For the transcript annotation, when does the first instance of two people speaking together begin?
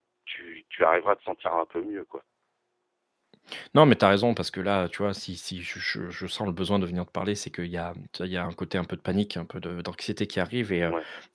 none

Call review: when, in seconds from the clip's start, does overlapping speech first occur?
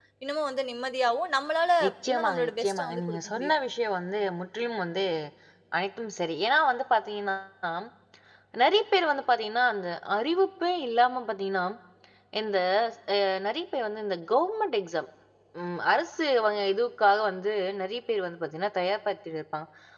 2.1 s

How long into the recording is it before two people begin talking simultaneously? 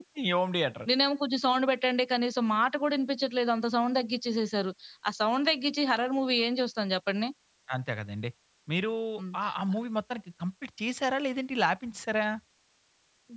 none

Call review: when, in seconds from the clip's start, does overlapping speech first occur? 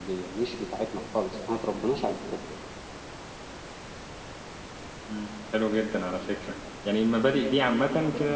none

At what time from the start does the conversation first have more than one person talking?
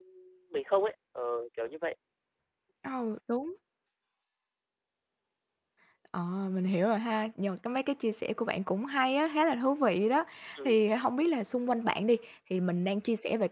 none

